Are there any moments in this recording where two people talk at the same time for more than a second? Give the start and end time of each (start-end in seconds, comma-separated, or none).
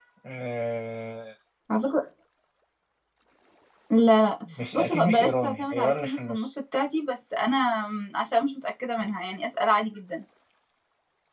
4.7-6.5